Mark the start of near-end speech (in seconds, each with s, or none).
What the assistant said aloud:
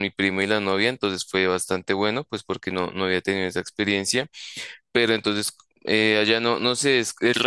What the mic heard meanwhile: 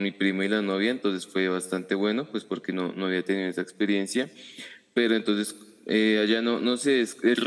none